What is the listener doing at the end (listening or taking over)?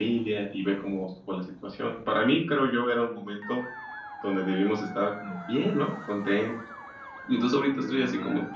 listening